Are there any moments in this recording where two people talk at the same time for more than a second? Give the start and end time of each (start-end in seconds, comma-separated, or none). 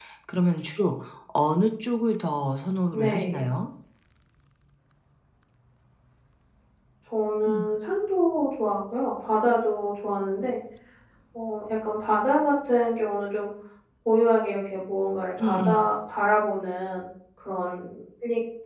none